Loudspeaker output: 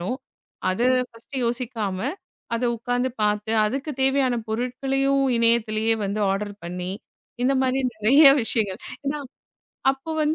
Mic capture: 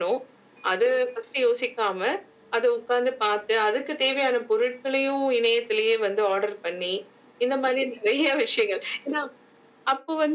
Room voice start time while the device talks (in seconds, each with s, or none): none